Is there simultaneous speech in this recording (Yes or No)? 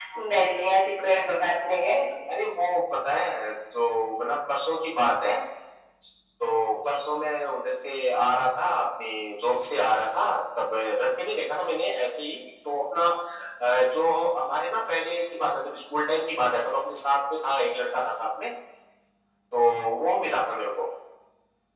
No